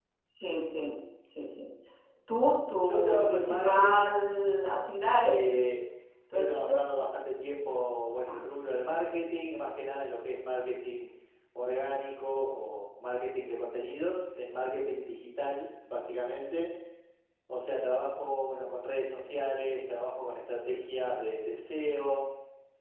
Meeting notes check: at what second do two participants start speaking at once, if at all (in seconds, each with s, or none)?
2.8 s